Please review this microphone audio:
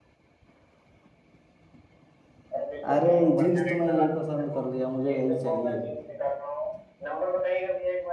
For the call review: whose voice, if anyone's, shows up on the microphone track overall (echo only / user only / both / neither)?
both